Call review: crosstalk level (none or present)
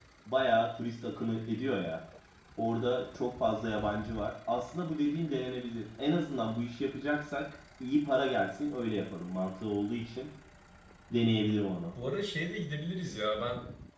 none